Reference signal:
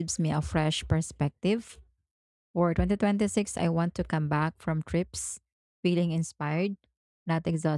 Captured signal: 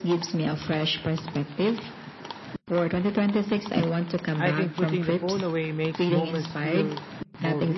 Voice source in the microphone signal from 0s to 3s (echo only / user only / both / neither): echo only